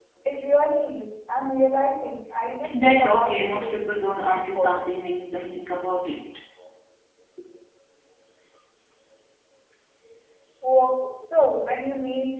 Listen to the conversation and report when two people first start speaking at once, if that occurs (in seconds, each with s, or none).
2.6 s